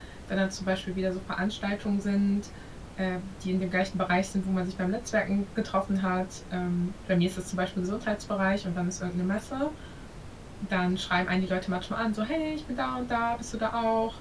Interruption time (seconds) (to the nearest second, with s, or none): none